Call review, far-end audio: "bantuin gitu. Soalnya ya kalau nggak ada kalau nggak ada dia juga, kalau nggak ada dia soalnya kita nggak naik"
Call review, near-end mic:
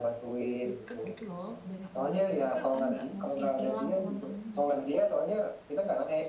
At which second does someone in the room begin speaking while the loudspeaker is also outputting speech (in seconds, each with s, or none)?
0.7 s